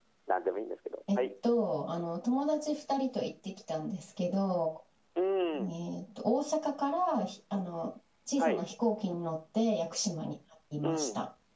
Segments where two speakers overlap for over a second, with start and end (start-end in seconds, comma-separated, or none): none